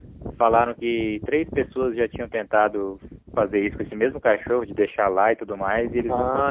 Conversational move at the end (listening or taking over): taking over